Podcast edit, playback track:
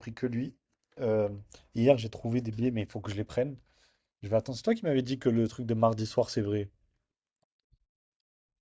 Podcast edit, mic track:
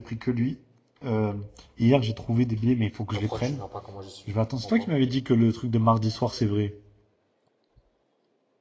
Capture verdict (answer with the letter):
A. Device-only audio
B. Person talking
B